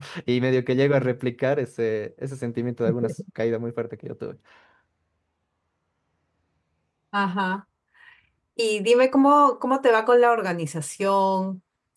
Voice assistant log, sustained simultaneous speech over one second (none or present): none